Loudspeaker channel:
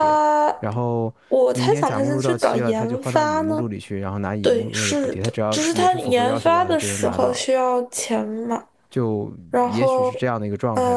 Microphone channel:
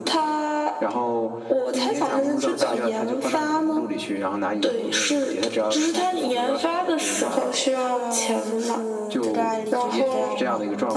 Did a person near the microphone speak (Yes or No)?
Yes